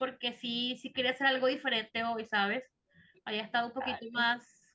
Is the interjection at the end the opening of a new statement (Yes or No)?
No